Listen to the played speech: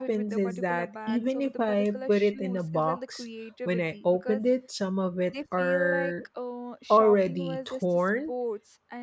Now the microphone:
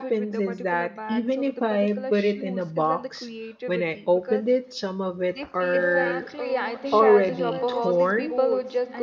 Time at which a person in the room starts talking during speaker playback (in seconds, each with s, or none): 5.7 s